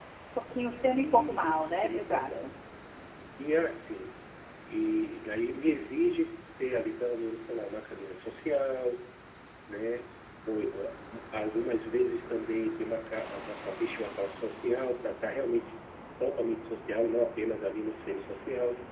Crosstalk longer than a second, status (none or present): present